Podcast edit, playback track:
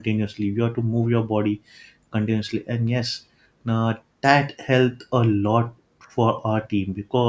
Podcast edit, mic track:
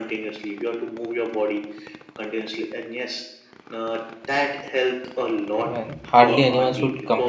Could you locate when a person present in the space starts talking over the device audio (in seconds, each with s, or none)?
5.7 s